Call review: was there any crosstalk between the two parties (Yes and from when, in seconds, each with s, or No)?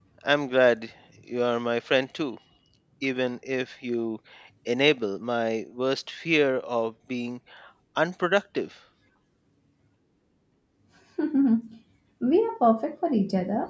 No